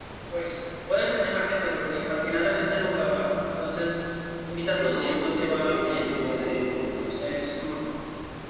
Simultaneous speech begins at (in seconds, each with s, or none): 4.8 s